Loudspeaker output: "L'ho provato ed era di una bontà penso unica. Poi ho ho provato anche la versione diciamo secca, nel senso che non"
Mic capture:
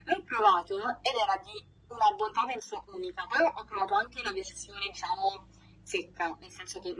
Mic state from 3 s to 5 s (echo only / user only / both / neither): echo only